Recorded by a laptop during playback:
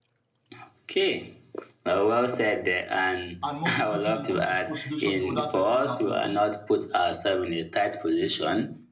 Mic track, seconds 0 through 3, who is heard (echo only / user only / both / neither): echo only